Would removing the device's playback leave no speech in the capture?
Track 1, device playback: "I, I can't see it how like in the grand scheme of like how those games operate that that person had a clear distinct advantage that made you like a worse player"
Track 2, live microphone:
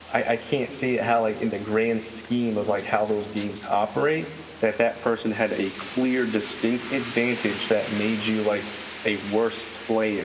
Yes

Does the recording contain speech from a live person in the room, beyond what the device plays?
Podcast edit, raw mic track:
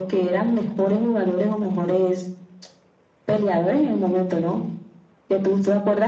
No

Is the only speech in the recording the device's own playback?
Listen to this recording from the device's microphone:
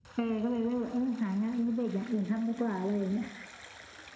Yes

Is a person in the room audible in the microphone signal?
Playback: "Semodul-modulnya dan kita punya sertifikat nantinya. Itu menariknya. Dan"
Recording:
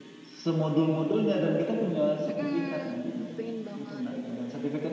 Yes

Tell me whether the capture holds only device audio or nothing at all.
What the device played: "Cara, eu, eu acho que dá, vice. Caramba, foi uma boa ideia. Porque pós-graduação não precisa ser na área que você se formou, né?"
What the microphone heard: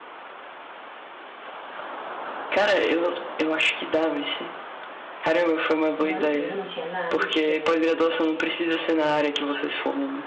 No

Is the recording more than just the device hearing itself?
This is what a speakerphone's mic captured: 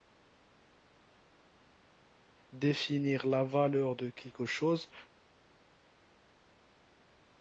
Yes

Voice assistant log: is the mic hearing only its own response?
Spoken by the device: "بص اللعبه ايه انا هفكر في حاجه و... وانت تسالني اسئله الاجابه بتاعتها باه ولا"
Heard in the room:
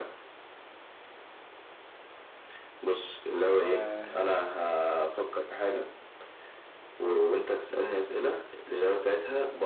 No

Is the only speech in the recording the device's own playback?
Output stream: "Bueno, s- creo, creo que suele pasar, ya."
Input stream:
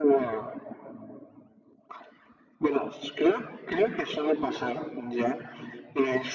Yes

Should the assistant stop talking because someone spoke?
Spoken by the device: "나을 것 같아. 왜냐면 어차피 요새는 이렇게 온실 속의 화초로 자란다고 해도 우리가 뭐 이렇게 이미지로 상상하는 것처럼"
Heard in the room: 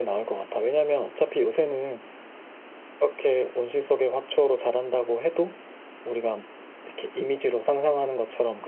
No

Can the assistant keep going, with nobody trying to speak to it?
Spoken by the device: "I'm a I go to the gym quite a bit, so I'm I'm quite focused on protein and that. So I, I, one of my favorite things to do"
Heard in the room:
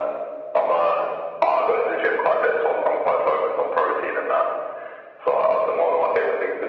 Yes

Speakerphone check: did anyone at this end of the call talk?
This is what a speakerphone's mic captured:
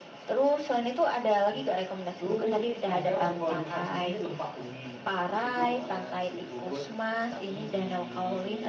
Yes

